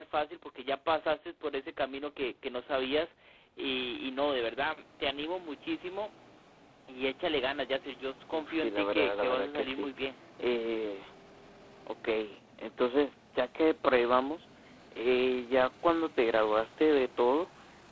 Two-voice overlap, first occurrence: 8.3 s

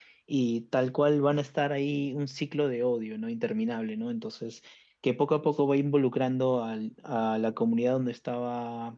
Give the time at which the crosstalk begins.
none

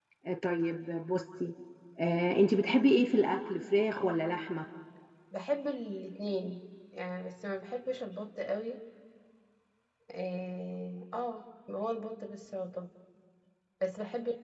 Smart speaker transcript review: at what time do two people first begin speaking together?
none

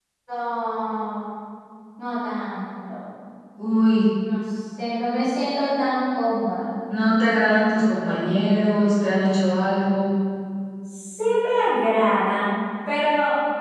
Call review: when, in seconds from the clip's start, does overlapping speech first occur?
none

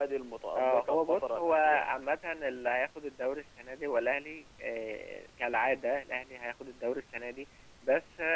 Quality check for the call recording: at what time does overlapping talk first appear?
0.6 s

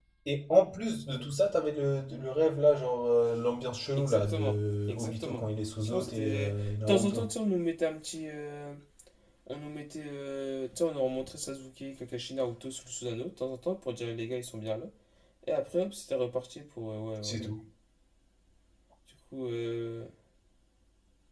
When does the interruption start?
4.0 s

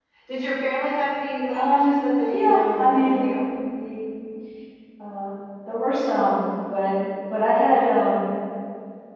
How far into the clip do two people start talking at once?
1.5 s

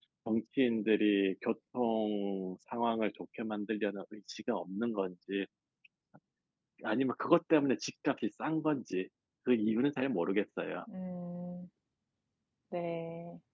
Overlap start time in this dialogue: none

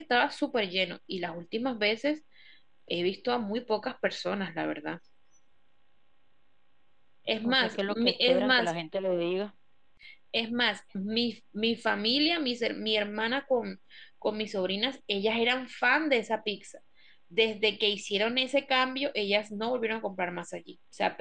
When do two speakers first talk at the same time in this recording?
7.4 s

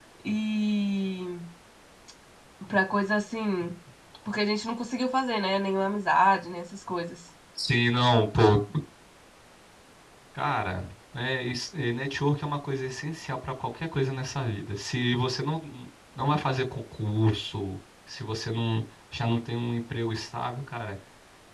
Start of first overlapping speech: none

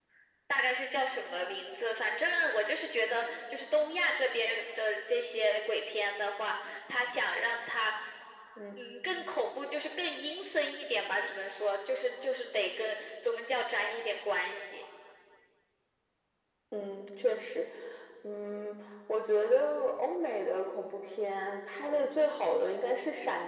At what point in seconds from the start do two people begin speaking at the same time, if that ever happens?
none

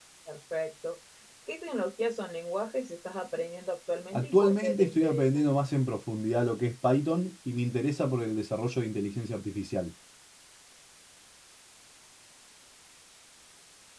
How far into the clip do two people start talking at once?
4.1 s

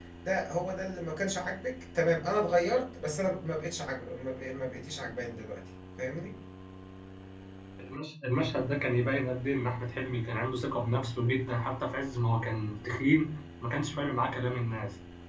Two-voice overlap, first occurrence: none

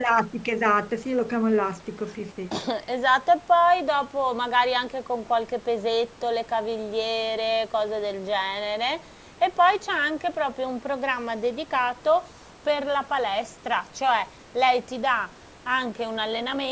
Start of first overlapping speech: none

